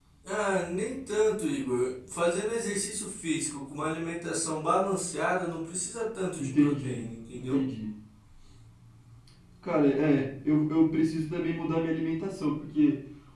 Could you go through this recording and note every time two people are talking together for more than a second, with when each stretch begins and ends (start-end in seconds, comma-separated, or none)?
6.4-7.6